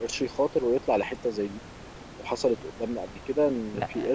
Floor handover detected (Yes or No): No